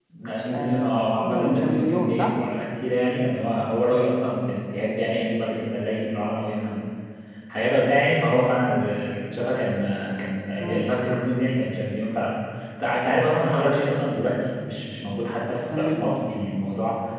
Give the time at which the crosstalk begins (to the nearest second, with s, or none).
1 s